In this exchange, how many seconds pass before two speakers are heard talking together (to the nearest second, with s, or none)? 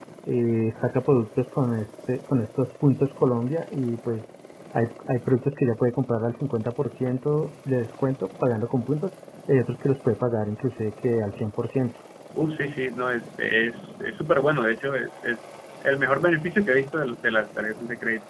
none